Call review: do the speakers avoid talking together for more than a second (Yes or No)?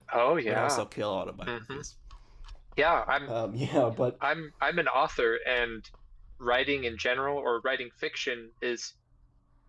Yes